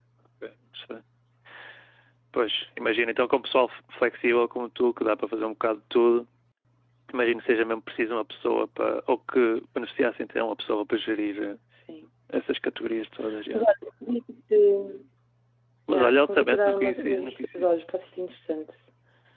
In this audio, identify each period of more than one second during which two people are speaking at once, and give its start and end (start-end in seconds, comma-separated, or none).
15.9-17.7